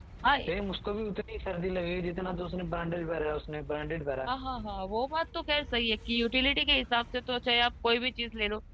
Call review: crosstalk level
none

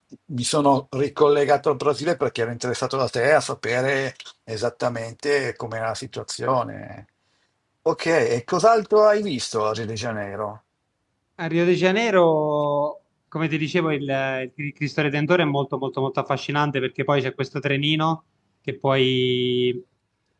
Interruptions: none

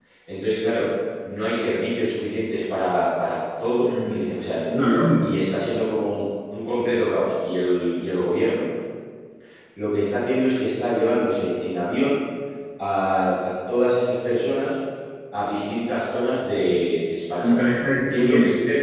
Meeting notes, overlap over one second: none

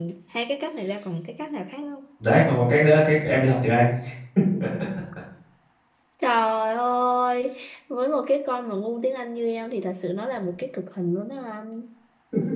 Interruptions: none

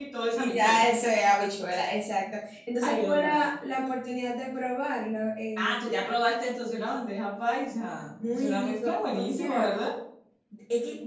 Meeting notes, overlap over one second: present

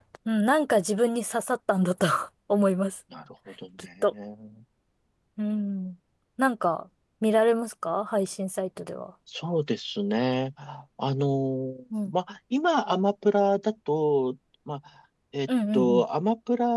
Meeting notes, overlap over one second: none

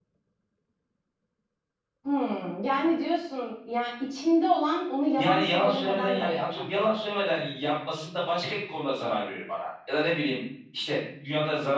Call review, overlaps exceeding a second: present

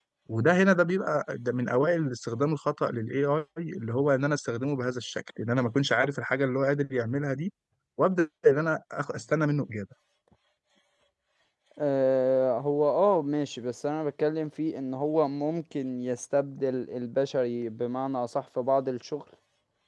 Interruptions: none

